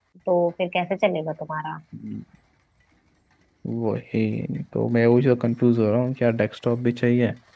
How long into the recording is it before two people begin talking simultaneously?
none

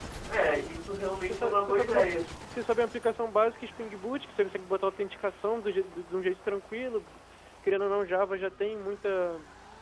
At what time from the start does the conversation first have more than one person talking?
0.9 s

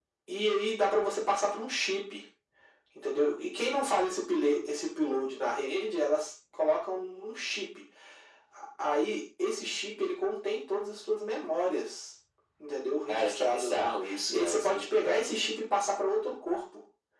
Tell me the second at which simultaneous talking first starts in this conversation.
13.1 s

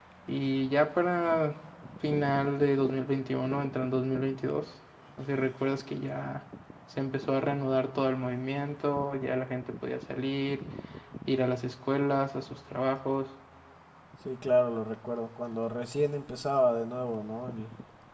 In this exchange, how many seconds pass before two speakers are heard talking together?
none

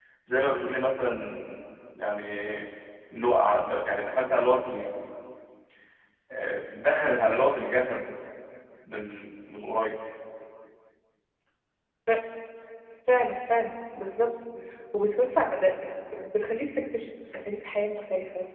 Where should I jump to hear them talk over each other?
none

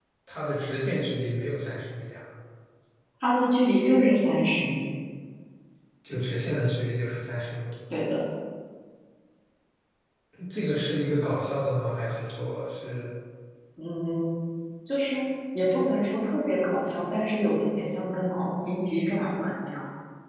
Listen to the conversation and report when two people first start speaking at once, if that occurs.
none

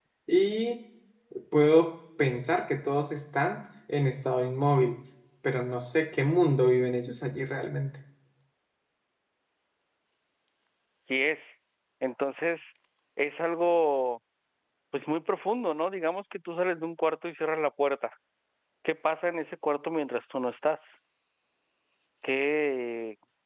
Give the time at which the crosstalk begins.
none

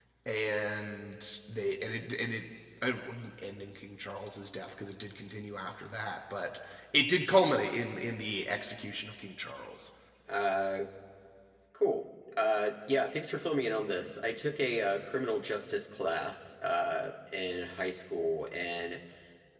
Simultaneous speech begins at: none

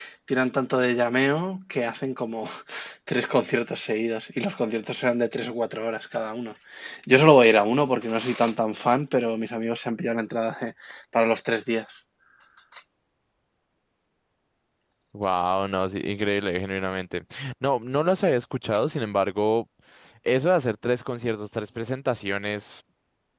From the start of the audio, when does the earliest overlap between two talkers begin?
none

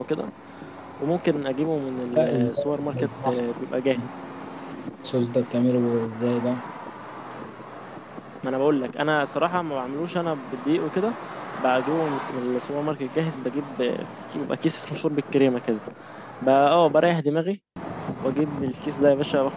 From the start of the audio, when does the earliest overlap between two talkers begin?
2.2 s

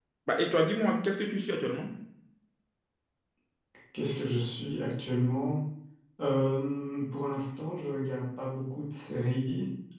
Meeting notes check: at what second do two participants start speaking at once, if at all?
none

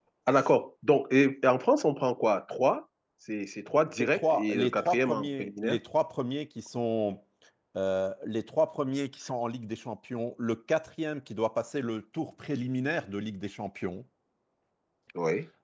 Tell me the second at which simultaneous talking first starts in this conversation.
4.0 s

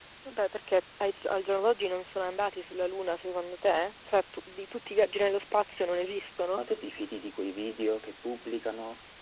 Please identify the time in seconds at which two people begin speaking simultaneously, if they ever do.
none

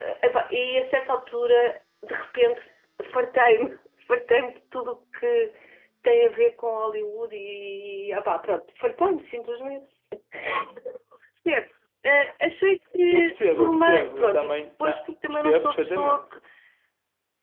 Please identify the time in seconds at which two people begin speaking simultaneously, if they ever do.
13.1 s

